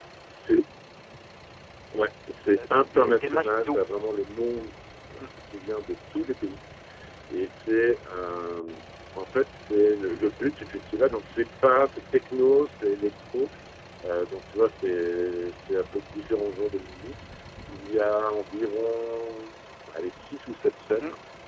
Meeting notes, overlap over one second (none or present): present